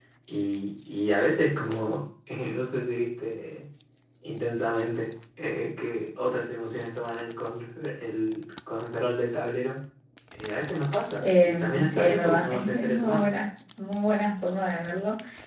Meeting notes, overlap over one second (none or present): present